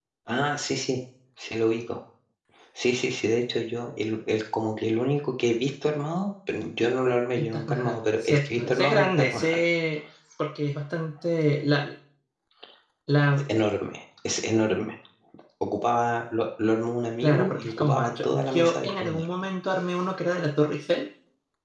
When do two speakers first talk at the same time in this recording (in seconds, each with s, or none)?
7.4 s